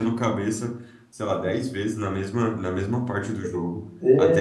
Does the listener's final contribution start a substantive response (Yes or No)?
No